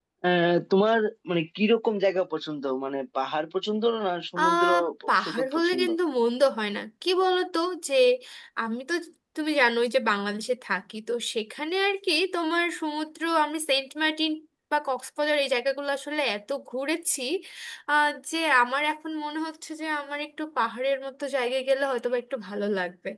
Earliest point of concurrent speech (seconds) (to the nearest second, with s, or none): 4 s